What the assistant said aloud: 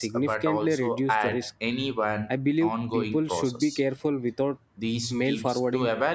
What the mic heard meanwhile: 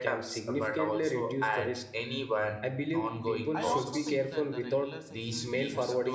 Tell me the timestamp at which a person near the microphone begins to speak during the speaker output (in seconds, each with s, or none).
3.5 s